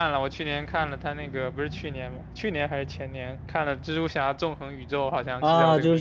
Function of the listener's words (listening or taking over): taking over